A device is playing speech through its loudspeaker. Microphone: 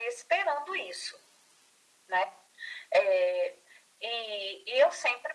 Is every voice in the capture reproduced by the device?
Yes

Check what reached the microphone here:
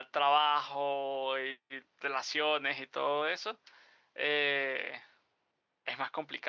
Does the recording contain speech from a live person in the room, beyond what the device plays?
Yes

